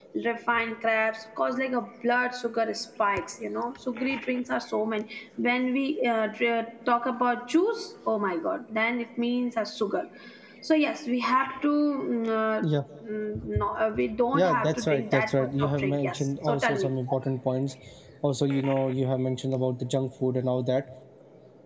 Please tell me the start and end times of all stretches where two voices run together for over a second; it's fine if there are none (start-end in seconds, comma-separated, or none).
14.3-16.9